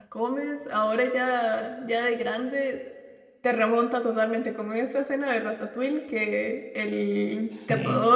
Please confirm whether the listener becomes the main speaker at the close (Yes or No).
No